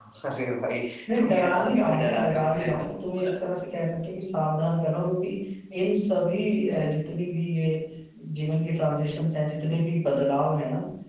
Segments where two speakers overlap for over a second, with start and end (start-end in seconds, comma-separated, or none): 1.2-2.7